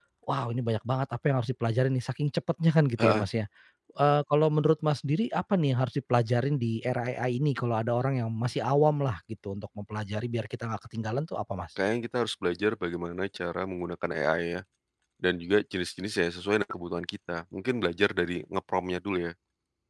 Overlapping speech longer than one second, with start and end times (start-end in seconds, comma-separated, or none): none